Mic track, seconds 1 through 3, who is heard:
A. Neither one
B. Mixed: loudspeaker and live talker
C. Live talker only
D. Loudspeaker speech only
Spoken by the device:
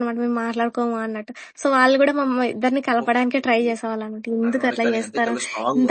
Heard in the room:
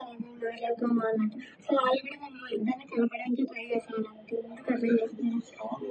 D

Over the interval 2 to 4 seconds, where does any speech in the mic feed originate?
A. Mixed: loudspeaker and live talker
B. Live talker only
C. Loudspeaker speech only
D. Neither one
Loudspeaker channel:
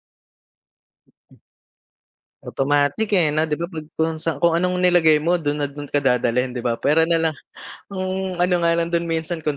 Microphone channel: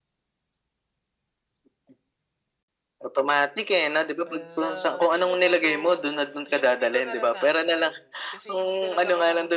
C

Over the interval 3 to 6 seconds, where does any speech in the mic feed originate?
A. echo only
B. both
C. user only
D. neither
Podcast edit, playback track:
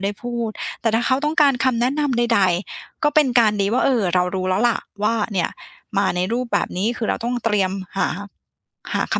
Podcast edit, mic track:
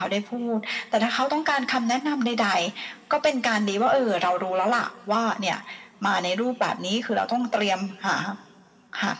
A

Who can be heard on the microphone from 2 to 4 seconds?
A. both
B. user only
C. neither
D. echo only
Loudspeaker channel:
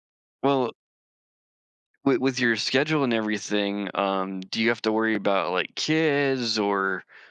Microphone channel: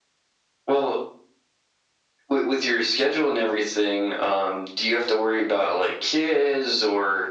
D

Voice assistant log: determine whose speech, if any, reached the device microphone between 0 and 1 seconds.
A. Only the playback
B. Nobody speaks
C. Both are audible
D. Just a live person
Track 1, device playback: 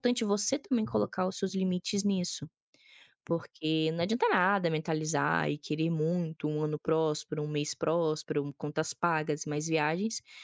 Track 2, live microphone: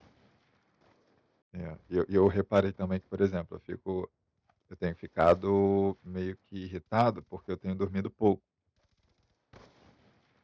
B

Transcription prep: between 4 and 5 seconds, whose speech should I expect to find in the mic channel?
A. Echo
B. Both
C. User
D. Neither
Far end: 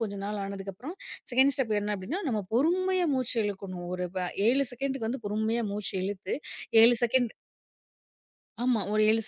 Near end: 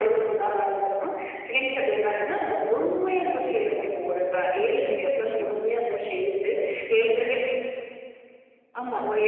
B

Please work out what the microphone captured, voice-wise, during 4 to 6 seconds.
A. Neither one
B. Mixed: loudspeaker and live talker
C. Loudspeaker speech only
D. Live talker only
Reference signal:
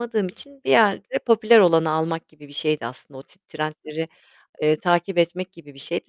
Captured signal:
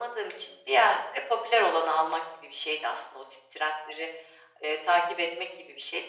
C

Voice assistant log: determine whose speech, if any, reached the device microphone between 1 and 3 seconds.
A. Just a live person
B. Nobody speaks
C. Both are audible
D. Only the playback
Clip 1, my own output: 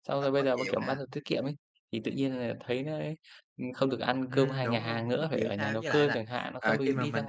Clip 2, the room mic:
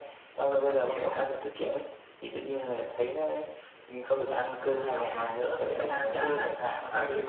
D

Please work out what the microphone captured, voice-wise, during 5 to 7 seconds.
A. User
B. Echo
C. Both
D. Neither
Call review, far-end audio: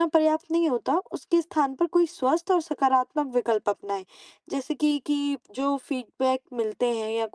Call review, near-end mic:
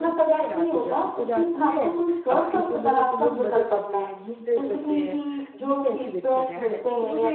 C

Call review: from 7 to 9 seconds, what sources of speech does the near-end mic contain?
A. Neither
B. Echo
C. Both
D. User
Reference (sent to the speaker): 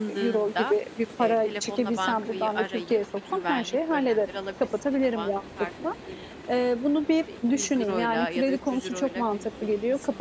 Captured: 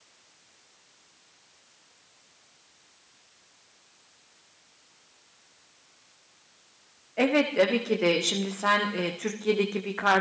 D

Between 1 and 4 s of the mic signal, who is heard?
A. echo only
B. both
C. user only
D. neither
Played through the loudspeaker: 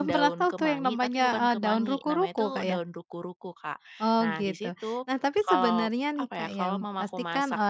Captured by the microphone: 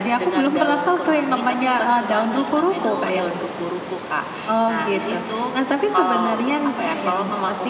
A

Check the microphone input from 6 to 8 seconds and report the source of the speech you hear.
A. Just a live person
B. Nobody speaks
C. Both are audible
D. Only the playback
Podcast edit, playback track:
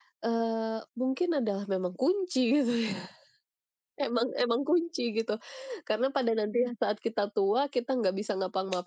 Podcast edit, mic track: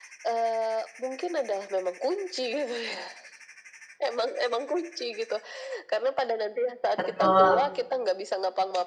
C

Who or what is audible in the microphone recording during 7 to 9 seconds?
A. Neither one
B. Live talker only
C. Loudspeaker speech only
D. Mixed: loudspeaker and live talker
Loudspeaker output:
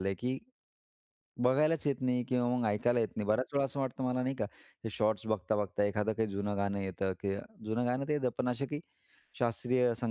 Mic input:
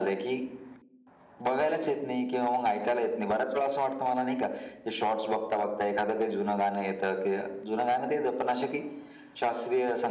C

